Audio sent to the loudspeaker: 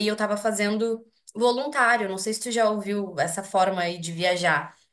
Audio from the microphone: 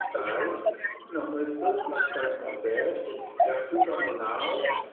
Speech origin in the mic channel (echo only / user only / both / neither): both